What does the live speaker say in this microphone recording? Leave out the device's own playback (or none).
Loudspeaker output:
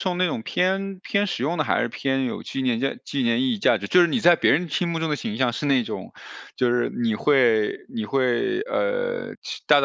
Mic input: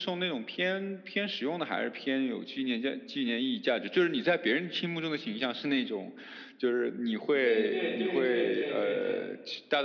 对对对对对对对。